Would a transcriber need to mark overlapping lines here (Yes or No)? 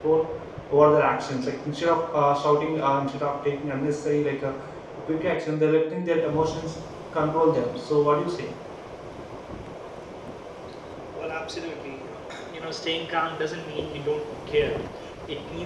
No